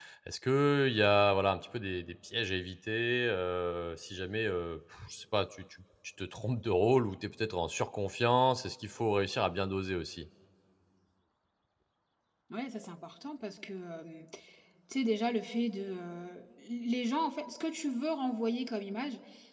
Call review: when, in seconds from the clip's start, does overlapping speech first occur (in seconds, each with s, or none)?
none